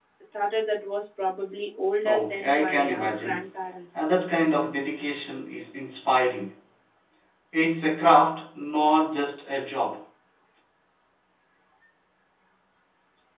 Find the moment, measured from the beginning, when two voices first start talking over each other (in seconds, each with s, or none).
2.0 s